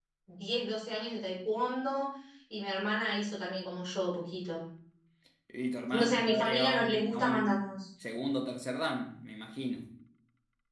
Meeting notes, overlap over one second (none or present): present